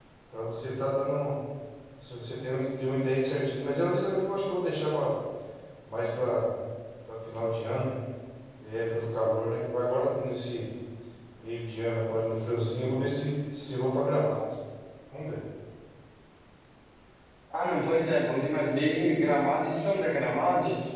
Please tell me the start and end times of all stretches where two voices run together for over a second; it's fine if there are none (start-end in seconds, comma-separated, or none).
none